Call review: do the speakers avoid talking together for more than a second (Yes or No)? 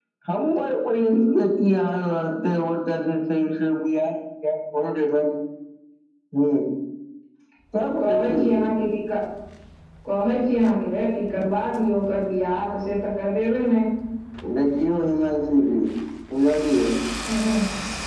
Yes